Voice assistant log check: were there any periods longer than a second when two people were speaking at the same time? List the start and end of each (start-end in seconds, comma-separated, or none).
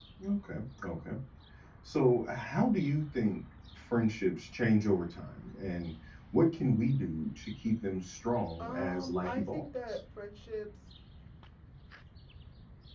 8.6-10.0